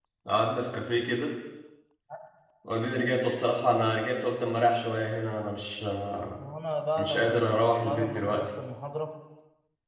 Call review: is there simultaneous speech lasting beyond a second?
Yes, from 7.0 s

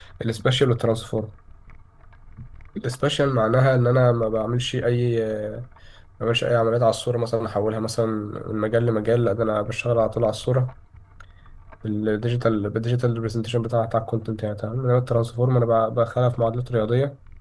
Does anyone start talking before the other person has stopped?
No

